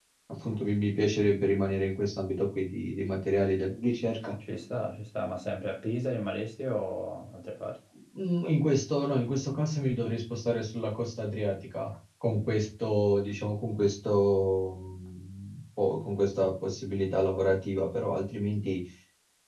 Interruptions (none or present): none